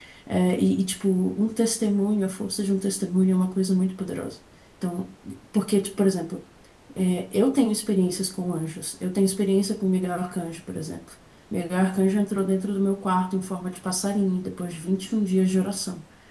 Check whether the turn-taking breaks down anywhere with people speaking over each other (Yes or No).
No